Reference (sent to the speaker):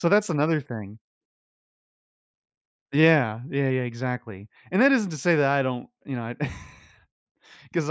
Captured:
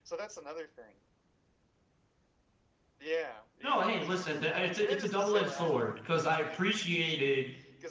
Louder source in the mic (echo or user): user